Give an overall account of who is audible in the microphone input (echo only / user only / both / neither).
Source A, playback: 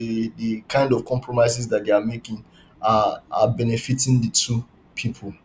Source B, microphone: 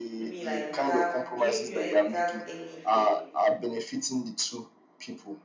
both